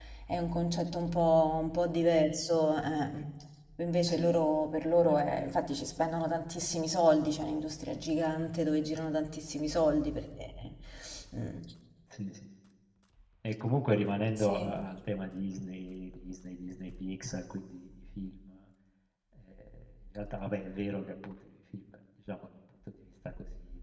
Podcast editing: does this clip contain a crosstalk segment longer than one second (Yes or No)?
No